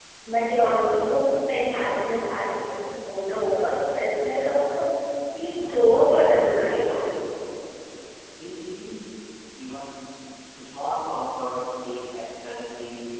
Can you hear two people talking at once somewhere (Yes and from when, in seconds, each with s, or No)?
Yes, from 5.5 s